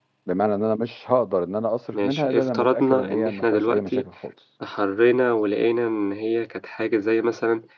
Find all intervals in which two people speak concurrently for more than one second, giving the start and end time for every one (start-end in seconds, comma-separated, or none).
1.9-4.1